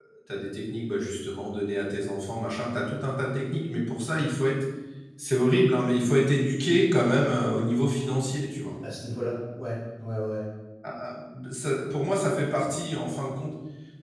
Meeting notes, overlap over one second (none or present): none